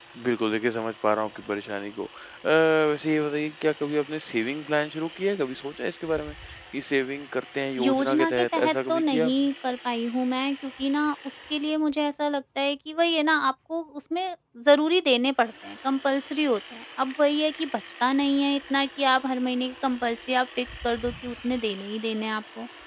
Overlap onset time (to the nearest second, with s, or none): 8 s